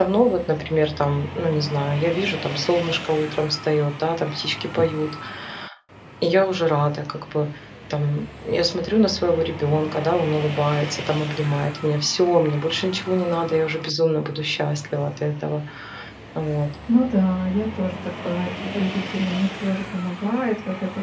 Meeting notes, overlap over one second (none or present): none